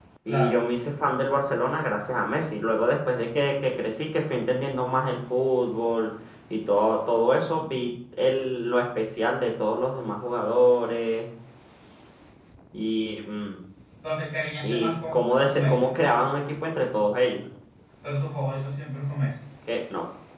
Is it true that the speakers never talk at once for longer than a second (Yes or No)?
No